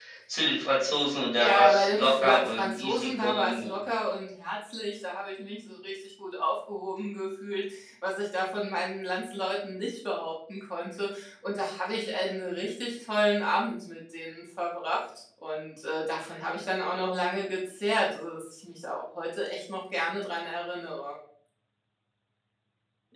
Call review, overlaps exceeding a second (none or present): present